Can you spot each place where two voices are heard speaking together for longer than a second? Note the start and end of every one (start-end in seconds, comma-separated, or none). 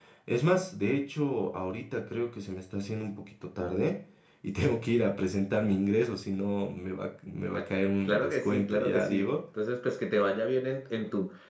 8.1-9.3